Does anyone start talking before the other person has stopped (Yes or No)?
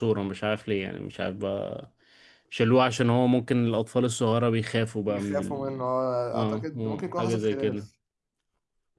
Yes